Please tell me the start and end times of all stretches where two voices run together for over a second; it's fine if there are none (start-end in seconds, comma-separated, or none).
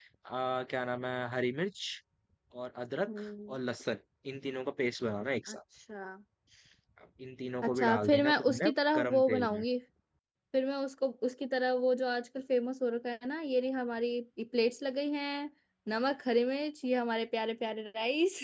7.6-9.6